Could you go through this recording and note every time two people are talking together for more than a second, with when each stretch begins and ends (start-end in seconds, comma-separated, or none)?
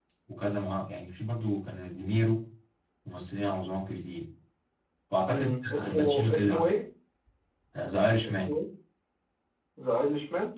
5.3-6.7